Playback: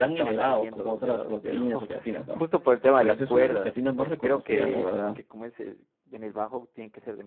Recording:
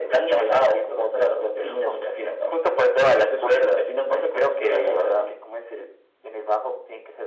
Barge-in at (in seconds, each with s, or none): none